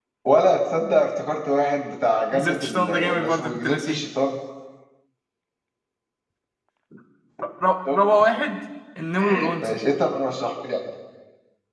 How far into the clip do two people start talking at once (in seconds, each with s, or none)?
2.3 s